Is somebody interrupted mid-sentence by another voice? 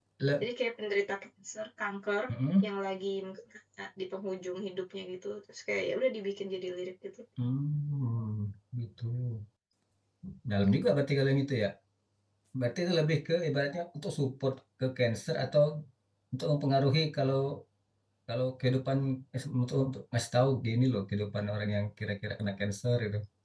No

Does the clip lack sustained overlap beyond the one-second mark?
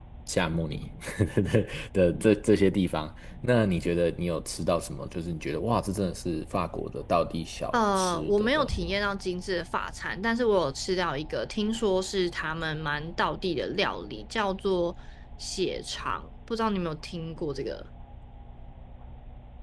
No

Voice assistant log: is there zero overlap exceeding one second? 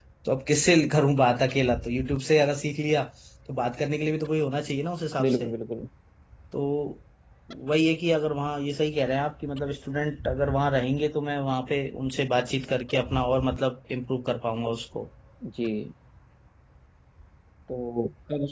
Yes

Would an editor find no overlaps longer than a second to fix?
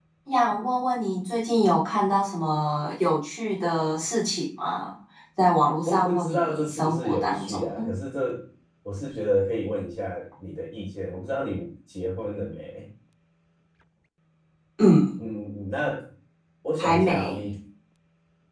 No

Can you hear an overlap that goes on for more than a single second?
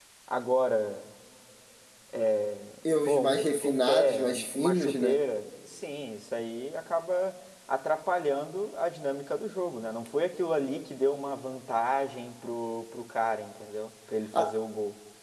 Yes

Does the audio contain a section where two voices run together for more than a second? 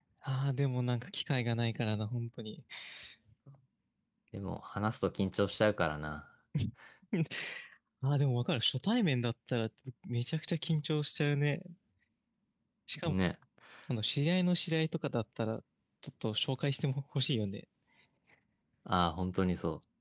No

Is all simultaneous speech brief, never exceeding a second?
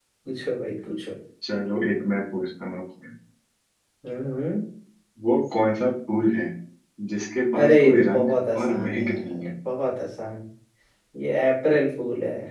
No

